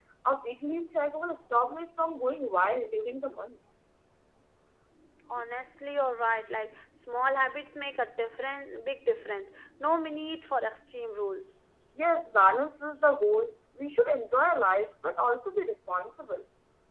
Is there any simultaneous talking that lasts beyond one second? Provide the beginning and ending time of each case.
none

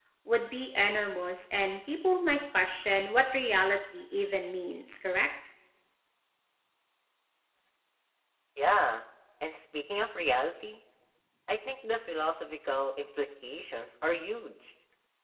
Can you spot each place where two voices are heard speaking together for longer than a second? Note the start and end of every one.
none

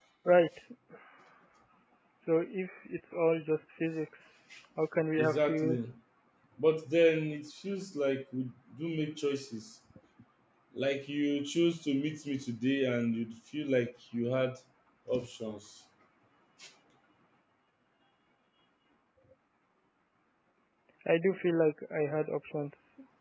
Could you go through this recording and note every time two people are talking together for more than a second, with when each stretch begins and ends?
none

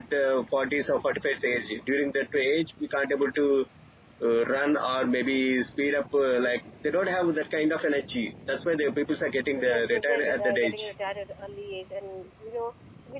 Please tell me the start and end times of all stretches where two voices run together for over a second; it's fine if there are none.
9.6-10.9

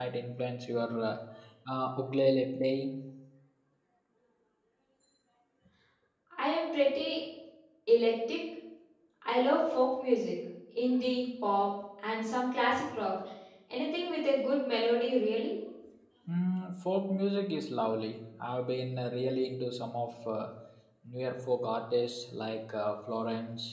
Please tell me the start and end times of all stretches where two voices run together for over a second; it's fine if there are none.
none

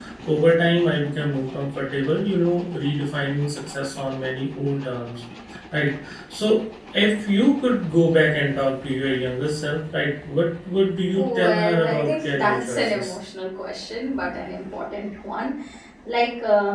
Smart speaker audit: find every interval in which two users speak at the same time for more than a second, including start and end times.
11.1-13.2

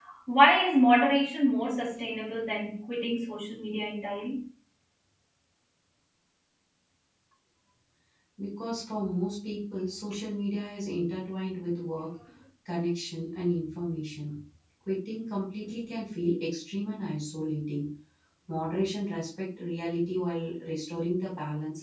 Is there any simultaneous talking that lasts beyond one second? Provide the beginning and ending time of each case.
none

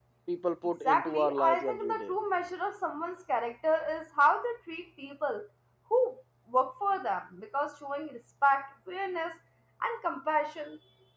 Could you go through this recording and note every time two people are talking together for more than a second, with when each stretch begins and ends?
0.8-2.1

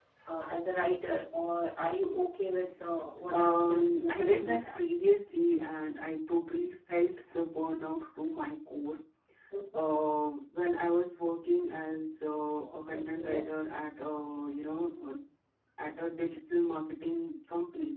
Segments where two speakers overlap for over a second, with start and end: 3.4-4.8

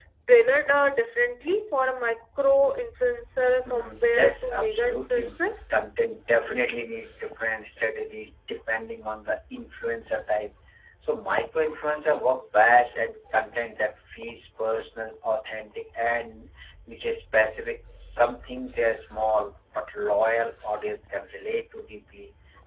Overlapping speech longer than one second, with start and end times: 3.6-5.3

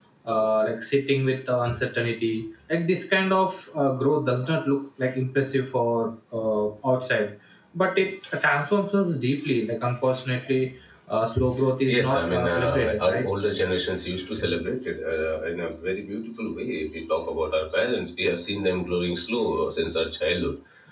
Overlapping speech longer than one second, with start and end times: 11.9-13.2

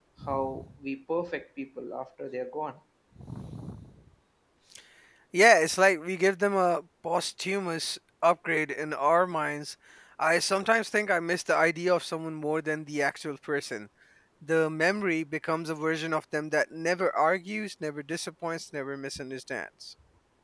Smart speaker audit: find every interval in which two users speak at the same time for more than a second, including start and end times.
none

